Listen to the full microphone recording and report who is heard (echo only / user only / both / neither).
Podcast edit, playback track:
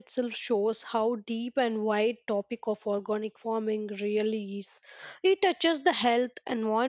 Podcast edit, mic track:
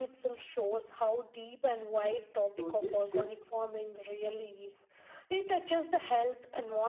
both